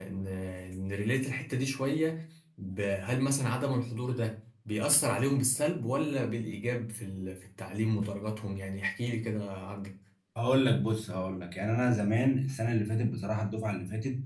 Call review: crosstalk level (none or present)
none